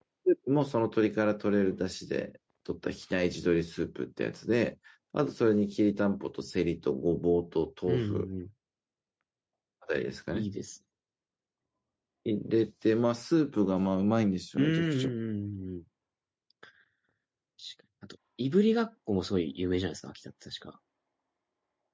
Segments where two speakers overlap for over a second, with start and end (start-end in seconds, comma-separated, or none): none